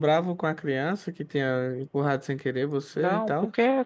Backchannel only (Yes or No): No